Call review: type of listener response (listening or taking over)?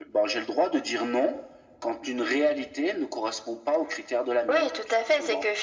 taking over